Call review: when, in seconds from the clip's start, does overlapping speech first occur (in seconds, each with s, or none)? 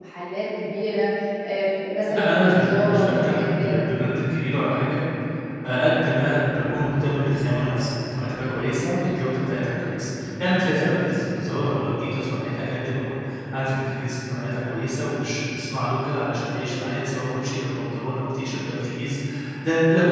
2.1 s